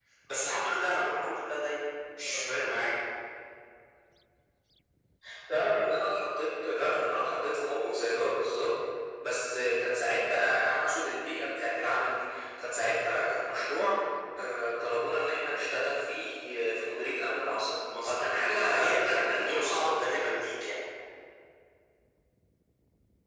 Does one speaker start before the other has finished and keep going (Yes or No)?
Yes